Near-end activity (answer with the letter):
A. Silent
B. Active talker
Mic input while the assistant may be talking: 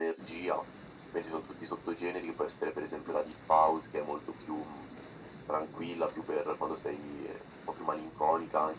A